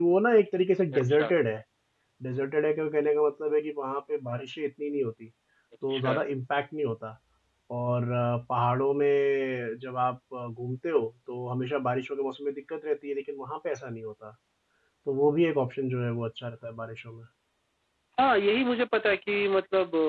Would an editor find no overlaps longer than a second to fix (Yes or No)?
Yes